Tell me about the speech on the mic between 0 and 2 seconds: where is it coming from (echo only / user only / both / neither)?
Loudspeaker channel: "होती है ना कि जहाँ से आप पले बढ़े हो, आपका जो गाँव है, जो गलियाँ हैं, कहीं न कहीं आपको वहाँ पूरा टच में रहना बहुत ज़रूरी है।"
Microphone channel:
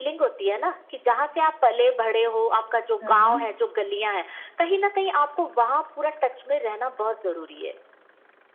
echo only